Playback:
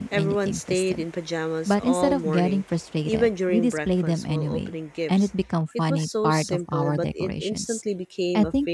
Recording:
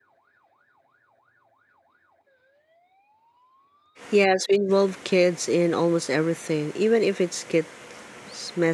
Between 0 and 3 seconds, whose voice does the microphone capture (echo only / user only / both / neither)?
neither